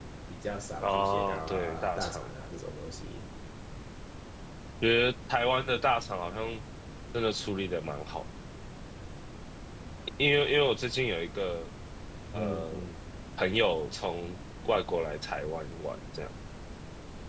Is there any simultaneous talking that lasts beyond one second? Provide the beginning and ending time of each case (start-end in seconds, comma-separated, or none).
0.8-2.2